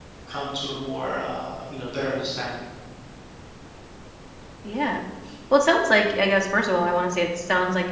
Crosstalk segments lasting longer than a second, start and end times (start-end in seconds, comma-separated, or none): none